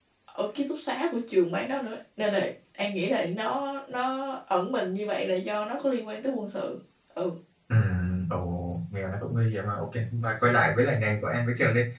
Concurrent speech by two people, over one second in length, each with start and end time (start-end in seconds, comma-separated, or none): none